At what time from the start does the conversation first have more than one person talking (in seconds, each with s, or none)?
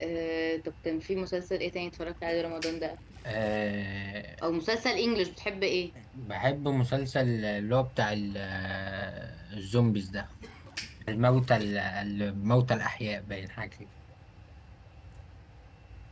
none